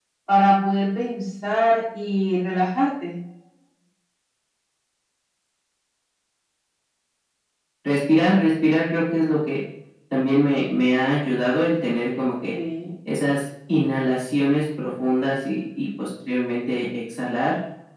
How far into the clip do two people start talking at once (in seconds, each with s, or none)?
none